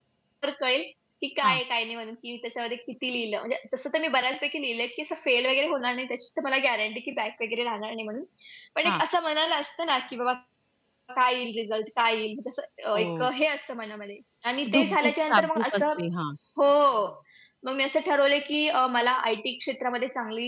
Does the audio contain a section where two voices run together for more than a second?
Yes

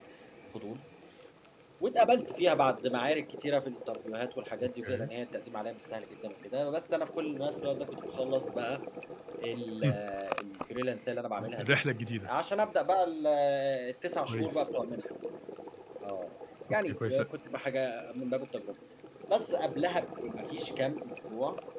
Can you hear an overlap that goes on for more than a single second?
No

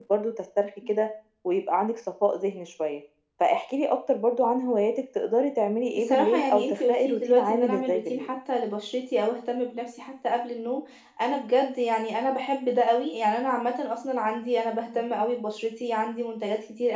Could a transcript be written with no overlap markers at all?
No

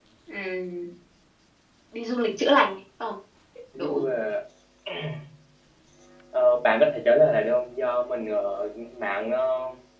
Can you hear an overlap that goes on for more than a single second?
No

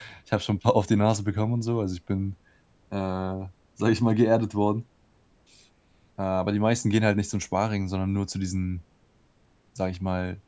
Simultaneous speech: No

